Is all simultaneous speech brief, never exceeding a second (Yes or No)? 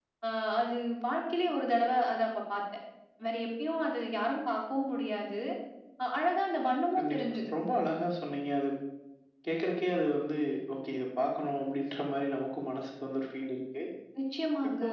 Yes